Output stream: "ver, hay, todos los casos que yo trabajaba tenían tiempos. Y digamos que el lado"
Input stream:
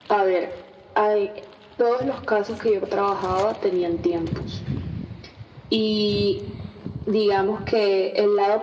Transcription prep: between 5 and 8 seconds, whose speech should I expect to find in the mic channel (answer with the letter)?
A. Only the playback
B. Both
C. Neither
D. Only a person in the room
A